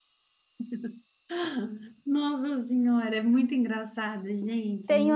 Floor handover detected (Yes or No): Yes